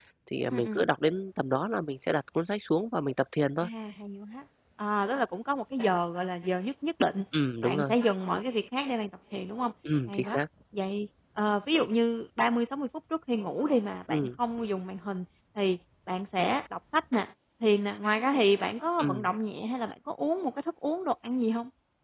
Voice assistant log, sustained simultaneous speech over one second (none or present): none